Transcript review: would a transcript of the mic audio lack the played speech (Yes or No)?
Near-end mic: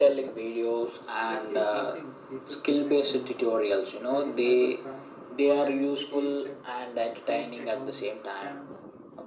No